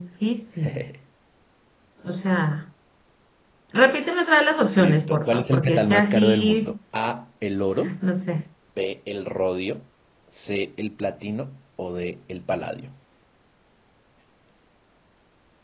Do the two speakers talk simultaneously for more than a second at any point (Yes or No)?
Yes